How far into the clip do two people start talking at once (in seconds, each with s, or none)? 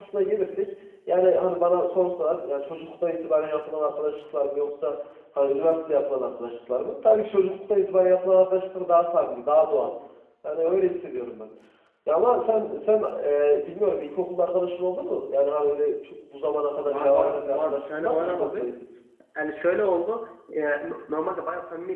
16.9 s